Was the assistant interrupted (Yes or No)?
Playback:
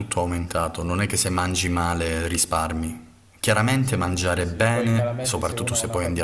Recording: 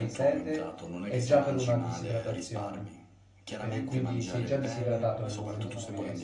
Yes